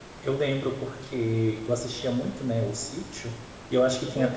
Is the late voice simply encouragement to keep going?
Yes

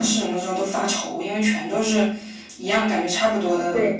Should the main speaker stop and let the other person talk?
Yes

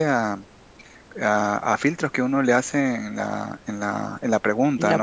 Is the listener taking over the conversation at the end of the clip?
No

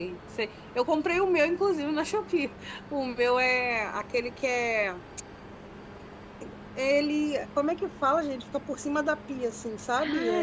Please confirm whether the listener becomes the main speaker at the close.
Yes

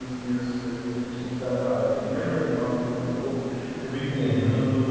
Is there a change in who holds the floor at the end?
No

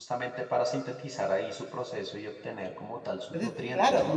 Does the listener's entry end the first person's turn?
Yes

